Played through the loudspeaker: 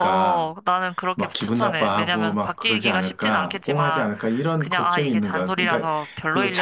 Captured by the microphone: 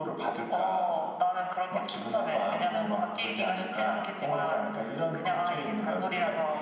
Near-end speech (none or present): none